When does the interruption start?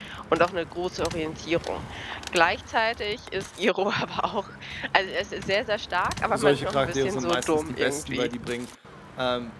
6.3 s

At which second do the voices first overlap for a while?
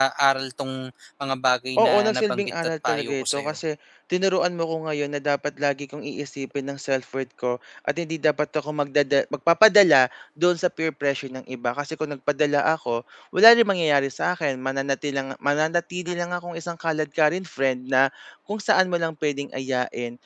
1.8 s

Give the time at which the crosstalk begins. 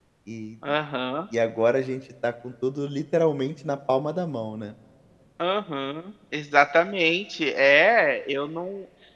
none

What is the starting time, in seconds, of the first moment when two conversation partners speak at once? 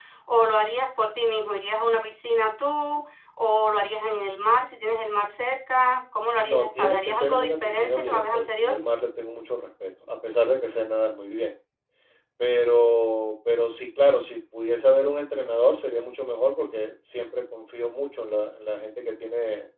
6.4 s

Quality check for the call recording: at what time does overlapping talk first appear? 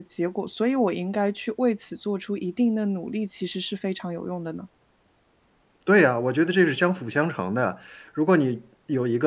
none

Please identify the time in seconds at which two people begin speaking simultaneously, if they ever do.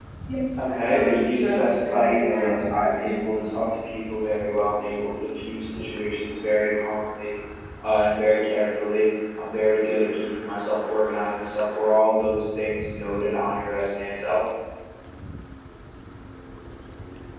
0.8 s

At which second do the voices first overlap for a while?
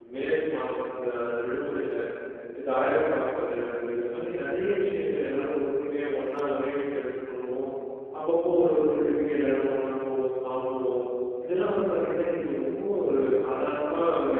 none

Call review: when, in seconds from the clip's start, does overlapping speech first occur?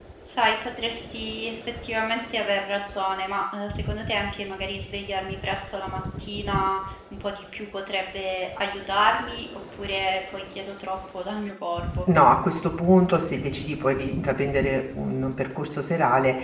none

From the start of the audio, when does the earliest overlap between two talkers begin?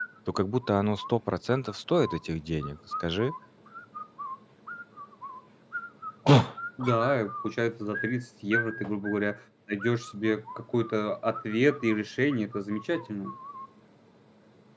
none

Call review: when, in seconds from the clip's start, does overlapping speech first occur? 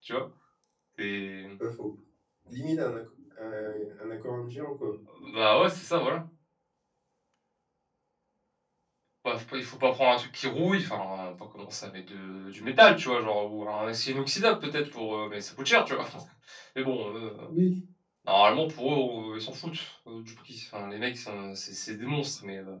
none

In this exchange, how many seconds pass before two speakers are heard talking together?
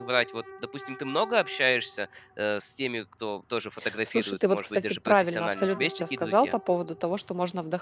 4.0 s

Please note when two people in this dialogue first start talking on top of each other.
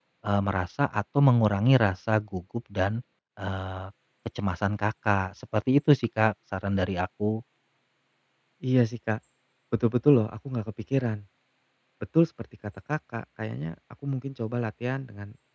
none

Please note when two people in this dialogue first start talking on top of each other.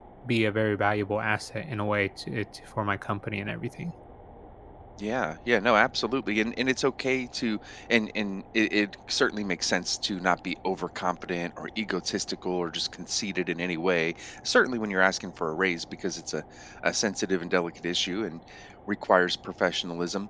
none

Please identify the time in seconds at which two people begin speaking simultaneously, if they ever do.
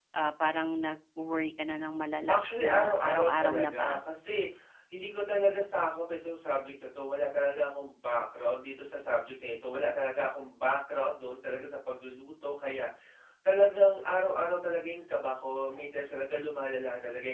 2.3 s

